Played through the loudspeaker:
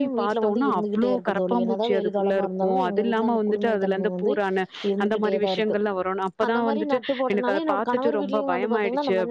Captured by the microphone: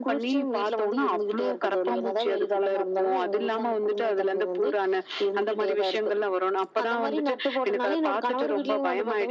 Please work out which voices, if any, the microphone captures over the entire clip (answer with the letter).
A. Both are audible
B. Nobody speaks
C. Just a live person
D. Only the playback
D